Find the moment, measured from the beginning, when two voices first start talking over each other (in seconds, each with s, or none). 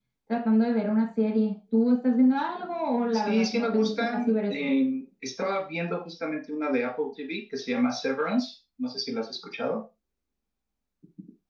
3.1 s